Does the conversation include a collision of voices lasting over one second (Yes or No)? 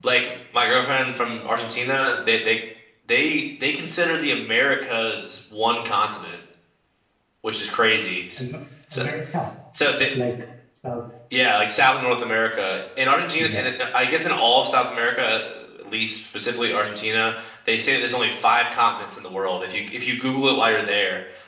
No